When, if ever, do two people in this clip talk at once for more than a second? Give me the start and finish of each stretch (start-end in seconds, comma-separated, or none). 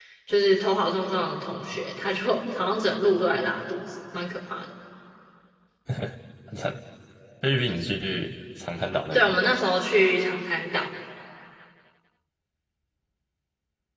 none